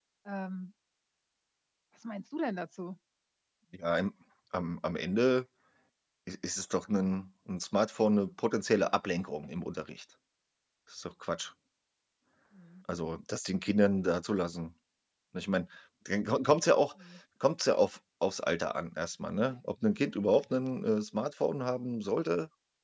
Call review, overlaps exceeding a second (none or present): none